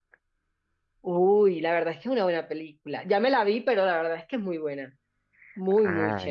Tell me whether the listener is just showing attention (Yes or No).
No